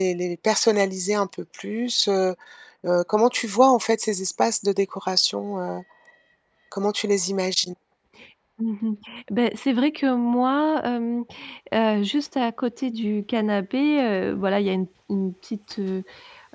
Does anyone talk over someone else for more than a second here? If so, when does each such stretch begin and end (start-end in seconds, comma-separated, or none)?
none